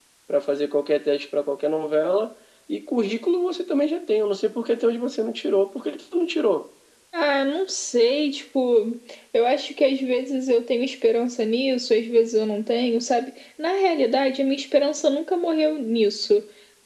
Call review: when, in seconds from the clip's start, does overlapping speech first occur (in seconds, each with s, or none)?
none